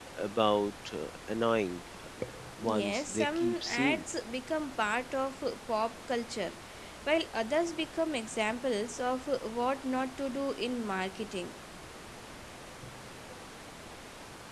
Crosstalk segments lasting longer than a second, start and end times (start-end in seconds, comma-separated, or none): 2.7-4.0